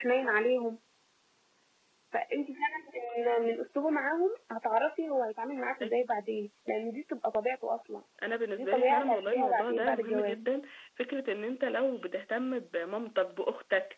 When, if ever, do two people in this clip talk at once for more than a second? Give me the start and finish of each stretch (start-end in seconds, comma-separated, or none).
8.6-10.4